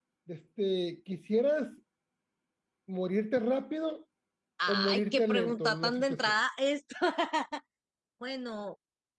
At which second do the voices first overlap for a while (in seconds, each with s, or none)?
4.7 s